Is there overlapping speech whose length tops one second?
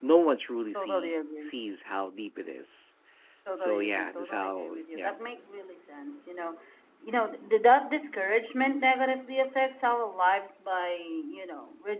Yes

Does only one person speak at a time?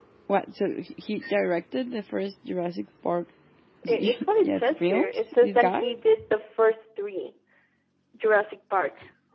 No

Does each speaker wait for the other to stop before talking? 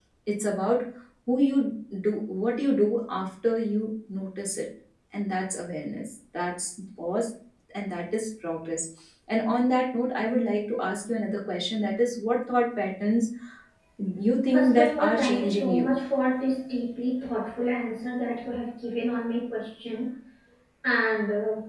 No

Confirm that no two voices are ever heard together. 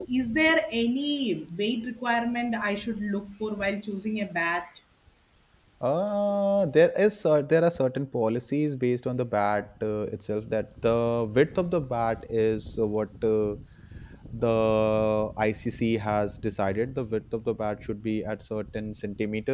Yes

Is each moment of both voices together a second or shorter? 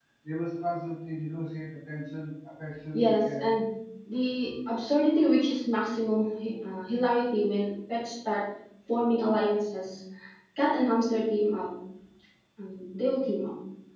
Yes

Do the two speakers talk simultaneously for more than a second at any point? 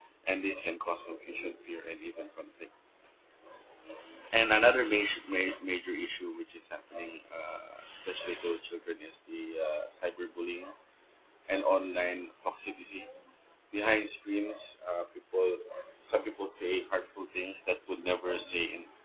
No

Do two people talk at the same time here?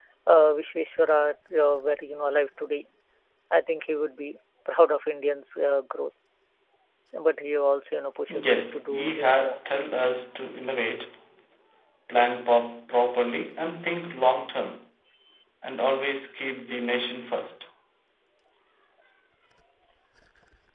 Yes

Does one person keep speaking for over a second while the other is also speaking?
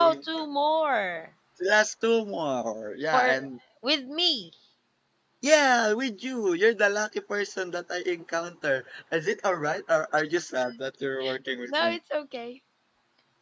No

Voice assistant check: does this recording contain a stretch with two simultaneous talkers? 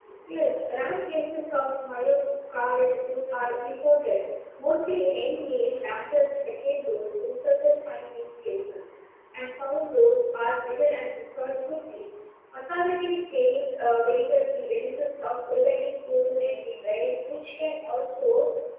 No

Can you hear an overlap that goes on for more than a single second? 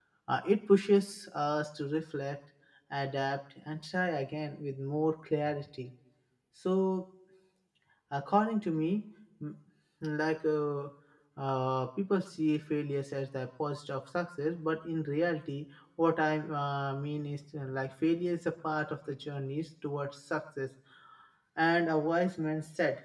No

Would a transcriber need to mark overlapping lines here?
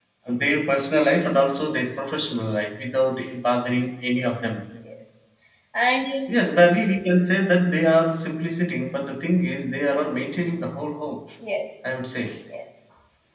No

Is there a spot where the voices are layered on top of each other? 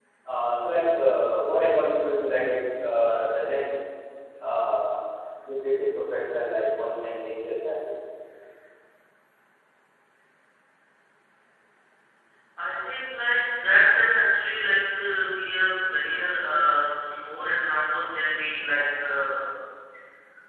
No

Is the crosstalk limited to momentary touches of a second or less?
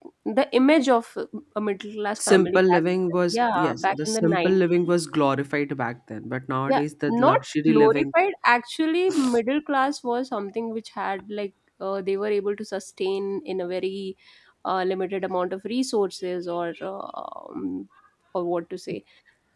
No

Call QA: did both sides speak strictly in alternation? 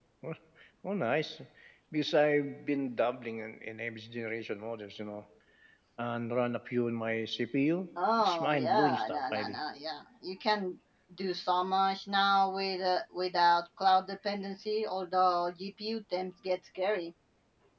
No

